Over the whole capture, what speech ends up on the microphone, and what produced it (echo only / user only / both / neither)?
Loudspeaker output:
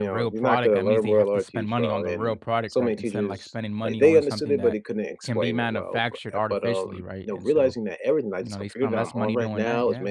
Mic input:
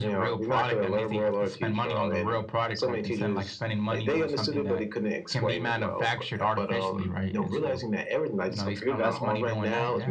echo only